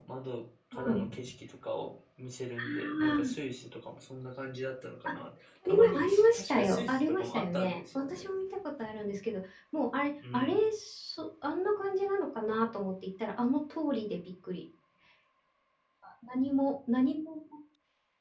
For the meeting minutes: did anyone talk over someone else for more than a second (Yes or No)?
Yes